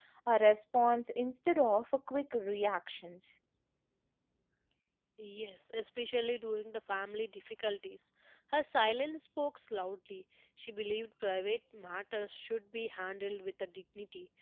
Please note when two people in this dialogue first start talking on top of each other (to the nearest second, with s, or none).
none